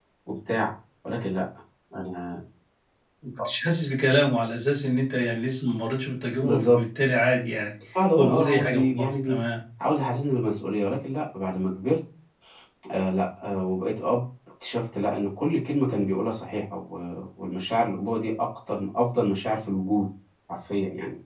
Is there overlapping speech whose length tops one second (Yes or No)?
Yes